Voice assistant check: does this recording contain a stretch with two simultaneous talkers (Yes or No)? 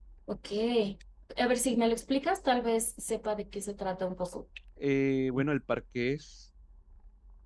No